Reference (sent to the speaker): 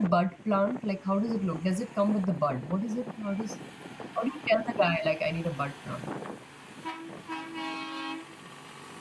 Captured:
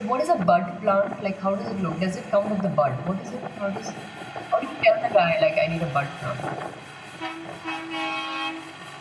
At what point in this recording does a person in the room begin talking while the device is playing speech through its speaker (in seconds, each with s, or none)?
none